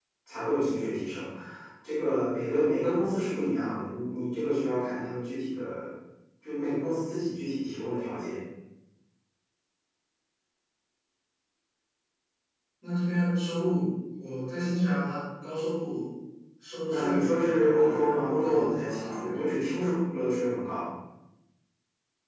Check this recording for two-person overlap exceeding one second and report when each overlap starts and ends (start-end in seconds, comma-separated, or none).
16.9-19.5